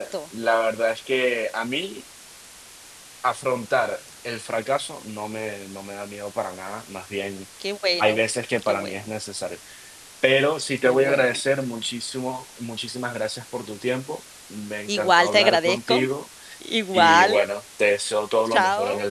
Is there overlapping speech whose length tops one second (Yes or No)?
Yes